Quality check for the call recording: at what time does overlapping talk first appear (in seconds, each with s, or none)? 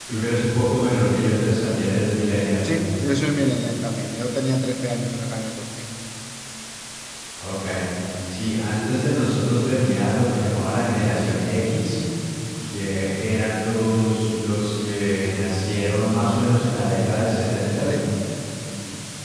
none